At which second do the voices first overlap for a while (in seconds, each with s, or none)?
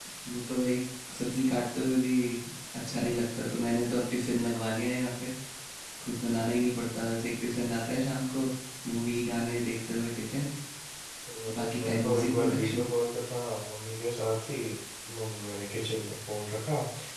11.6 s